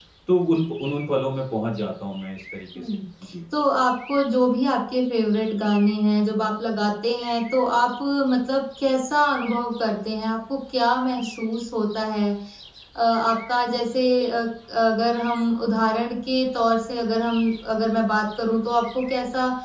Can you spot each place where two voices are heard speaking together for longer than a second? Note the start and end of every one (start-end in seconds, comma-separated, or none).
none